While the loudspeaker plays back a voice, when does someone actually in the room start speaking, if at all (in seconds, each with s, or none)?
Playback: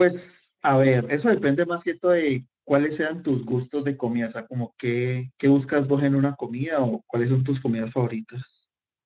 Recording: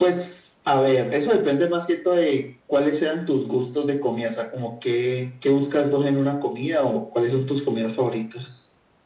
none